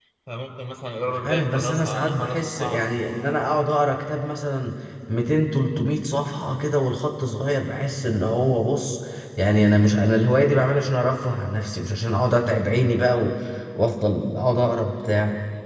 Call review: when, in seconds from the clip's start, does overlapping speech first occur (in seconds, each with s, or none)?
1.1 s